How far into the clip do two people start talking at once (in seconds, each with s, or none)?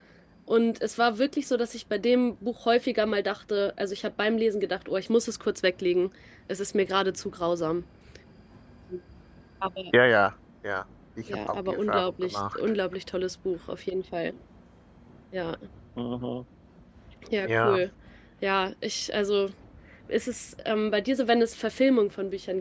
11.3 s